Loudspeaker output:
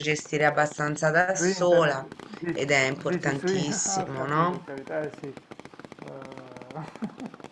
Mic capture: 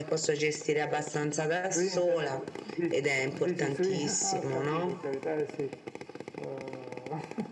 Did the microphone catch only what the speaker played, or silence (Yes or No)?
Yes